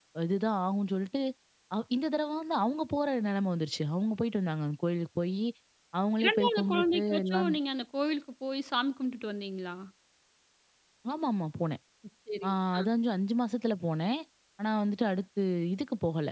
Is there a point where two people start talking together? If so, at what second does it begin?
6 s

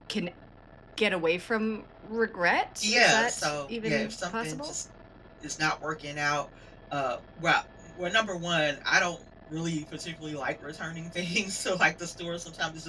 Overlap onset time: 3 s

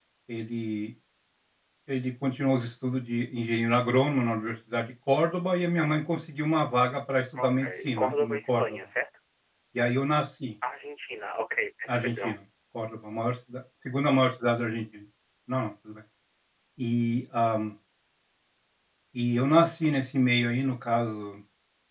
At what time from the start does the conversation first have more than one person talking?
7 s

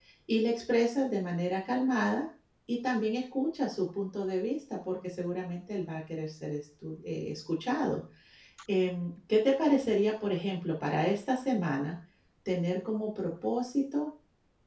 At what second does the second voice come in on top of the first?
none

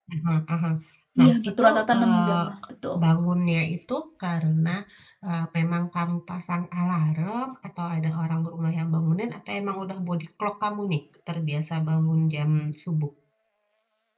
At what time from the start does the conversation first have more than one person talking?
1 s

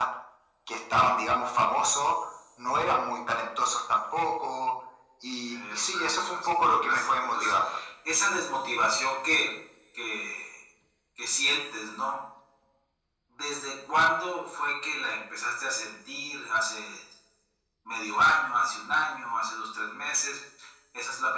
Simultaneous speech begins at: 5 s

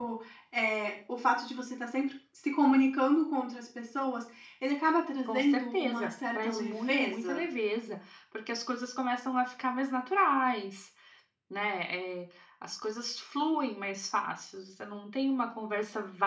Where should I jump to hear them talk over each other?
5 s

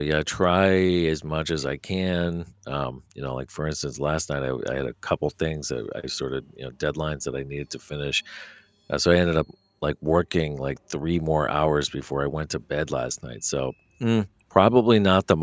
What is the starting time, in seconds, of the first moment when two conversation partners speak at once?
none

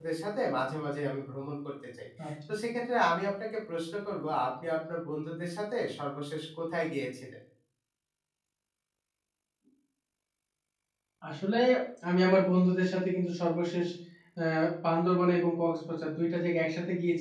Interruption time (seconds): none

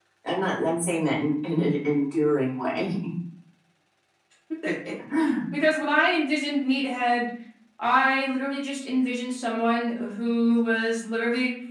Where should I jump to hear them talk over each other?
none

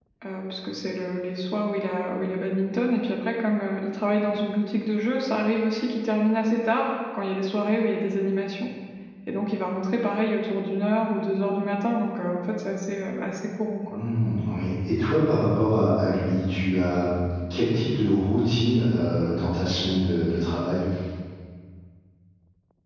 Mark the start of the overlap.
none

